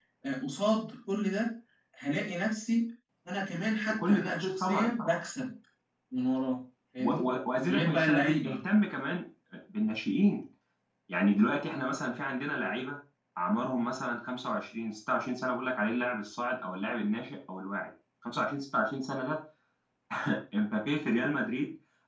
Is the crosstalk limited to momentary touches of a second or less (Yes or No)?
No